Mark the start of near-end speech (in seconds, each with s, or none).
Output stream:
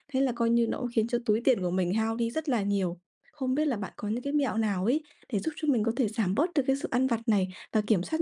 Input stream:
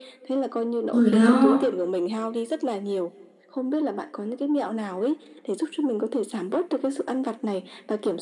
0.9 s